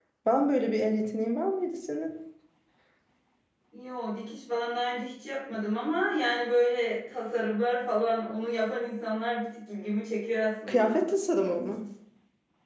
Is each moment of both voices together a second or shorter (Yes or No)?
Yes